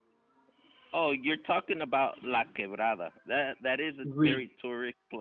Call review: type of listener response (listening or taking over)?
listening